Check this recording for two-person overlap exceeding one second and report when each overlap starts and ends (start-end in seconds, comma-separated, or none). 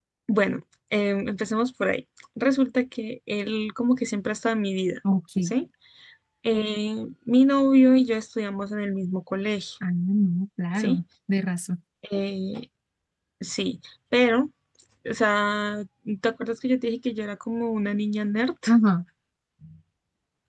none